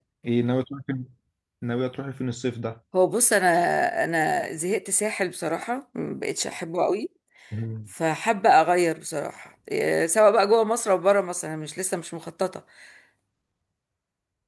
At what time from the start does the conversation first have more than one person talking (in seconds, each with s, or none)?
none